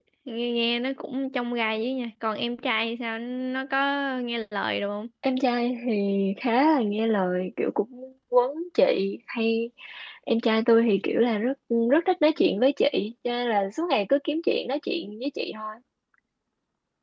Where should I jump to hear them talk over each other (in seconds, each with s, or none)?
none